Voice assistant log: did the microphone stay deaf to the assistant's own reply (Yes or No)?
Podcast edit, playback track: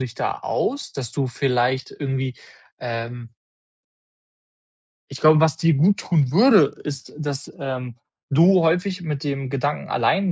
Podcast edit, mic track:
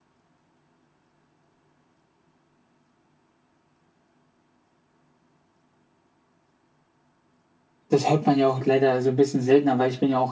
Yes